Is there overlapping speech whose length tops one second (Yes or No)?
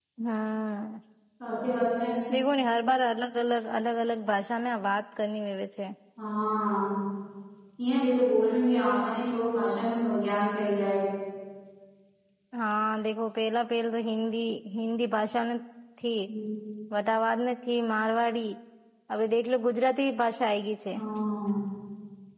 No